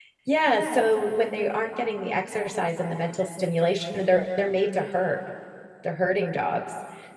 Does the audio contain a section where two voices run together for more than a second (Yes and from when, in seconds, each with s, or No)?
No